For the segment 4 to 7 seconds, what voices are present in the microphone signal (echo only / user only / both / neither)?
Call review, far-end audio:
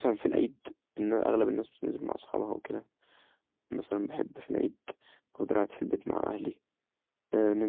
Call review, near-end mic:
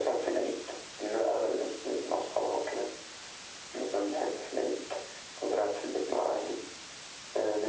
echo only